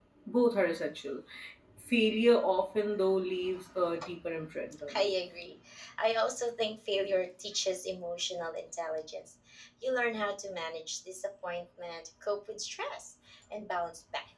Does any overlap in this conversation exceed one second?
No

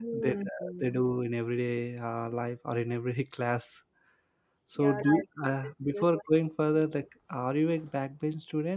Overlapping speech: Yes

